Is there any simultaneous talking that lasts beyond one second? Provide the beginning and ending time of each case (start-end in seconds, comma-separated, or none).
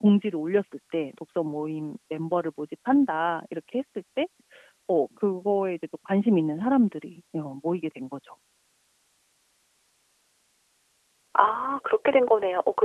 none